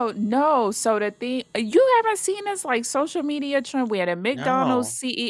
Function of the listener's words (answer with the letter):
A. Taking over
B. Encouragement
B